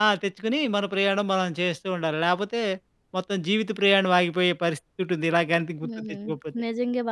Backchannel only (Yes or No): No